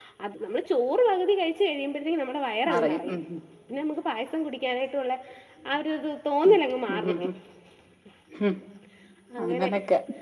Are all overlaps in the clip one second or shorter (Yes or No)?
Yes